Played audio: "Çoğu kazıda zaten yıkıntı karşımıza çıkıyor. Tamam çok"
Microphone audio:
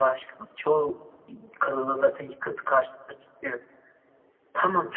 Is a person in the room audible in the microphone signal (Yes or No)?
No